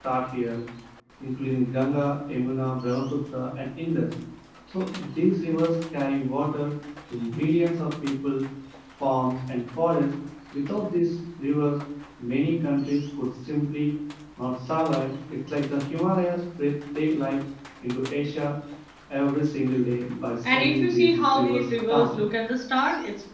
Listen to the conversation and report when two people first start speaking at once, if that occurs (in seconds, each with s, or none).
20.4 s